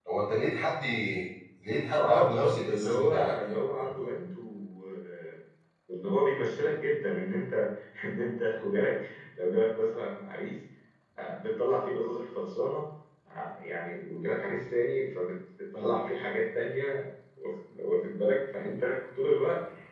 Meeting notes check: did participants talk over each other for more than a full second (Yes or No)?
Yes